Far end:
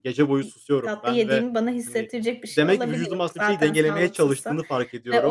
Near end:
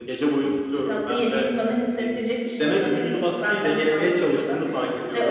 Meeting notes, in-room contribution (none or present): none